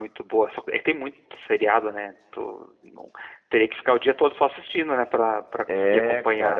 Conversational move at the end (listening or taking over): taking over